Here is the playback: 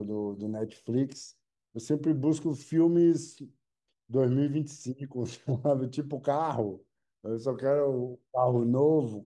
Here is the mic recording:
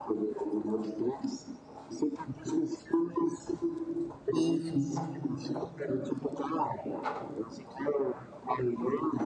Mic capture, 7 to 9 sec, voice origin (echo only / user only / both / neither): echo only